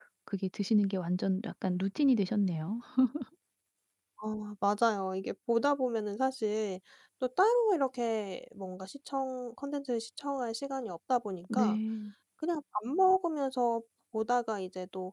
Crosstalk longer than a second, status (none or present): none